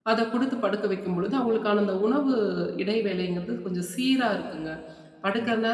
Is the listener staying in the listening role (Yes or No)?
Yes